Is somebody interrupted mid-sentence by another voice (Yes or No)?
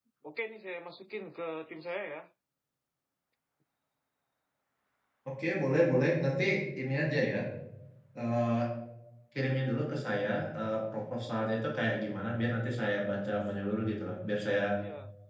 No